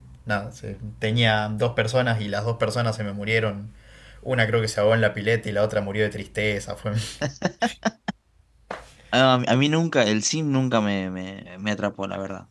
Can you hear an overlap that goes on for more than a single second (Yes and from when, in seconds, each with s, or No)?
No